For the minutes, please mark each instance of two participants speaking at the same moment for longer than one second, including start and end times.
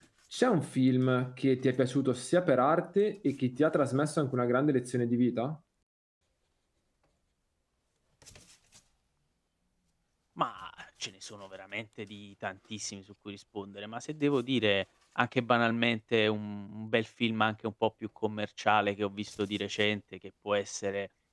none

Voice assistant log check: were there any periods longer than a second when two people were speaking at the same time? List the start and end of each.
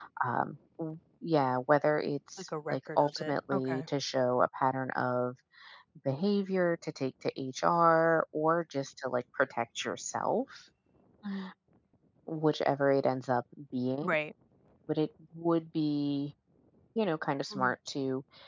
2.4-3.9

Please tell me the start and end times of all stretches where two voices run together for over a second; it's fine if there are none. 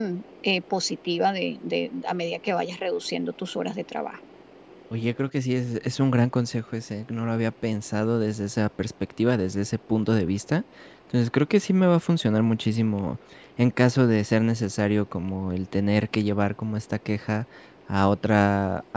none

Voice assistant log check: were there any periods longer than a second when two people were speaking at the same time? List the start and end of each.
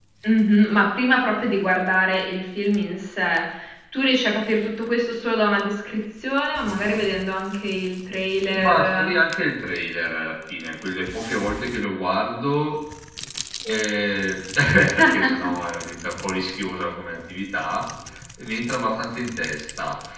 none

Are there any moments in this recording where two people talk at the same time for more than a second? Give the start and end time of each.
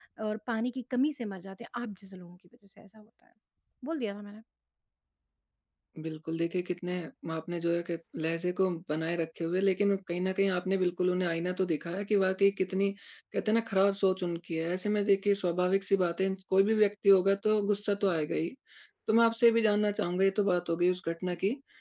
none

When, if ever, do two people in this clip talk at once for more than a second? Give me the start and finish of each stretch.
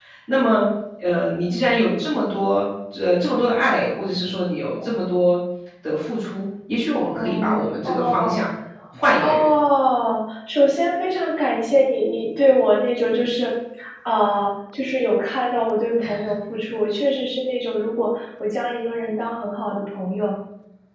7.0-8.4

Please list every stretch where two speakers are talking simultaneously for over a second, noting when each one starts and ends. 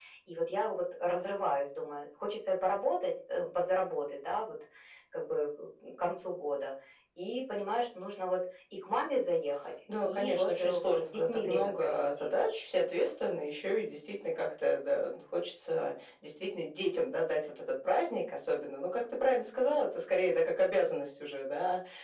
10.0-12.3

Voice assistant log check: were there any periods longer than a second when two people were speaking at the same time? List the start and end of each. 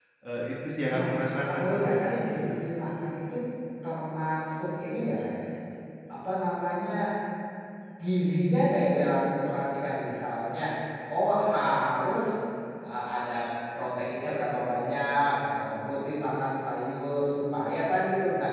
1.4-2.6

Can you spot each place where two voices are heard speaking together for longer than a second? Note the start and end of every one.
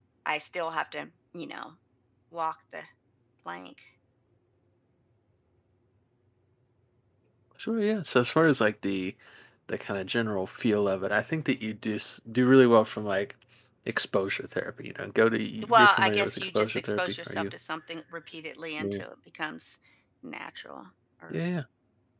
15.7-17.5

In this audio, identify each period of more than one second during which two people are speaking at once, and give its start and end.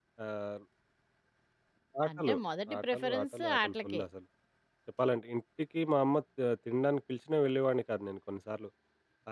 2.8-4.0

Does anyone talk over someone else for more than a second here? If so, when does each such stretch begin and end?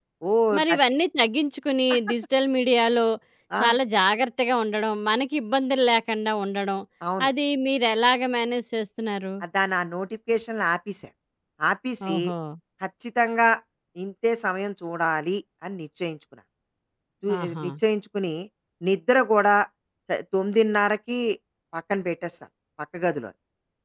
none

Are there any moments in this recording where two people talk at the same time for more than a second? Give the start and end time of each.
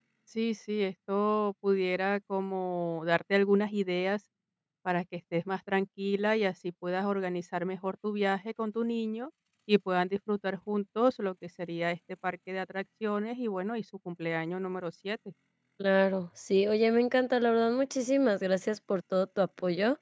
none

